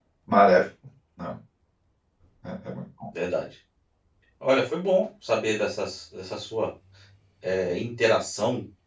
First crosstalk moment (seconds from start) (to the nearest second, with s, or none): none